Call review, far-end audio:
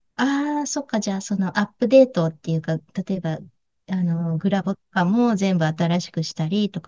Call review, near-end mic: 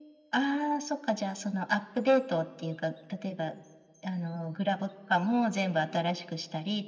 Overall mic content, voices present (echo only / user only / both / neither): echo only